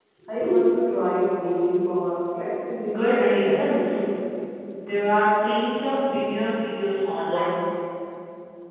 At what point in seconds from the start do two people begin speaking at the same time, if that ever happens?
2.8 s

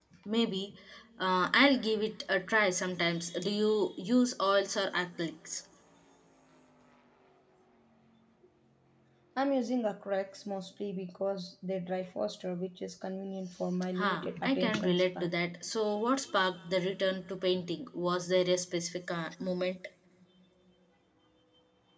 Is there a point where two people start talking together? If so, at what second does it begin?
14.0 s

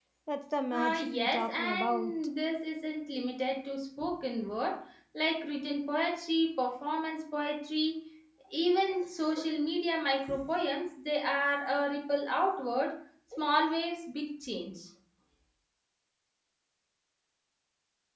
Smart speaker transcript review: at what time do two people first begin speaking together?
0.7 s

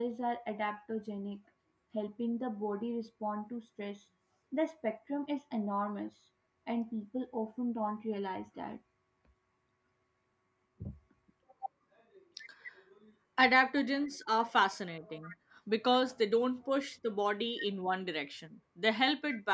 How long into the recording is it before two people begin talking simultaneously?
none

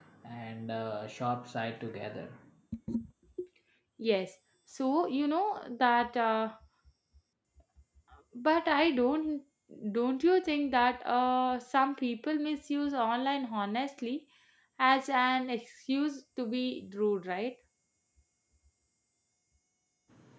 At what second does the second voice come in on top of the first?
none

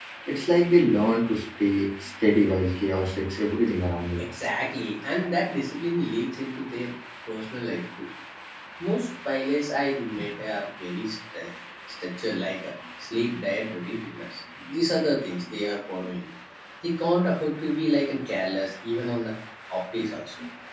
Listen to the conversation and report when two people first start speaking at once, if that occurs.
none

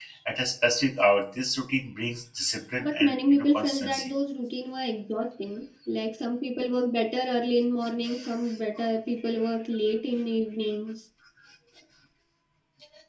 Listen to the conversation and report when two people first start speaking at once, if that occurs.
2.8 s

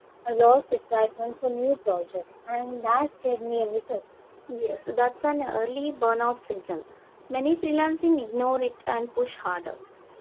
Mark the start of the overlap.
none

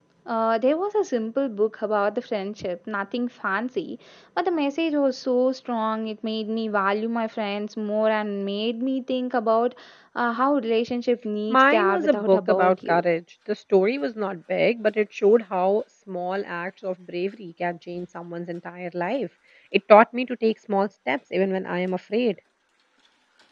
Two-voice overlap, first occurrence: 11.5 s

